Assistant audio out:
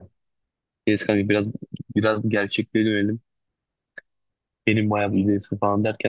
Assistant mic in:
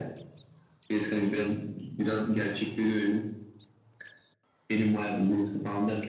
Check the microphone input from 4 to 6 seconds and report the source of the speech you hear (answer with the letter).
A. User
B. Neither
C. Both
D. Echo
D